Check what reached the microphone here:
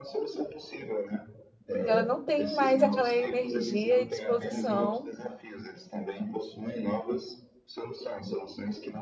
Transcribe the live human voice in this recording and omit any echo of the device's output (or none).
e ela não tem mais aquela energia e disposição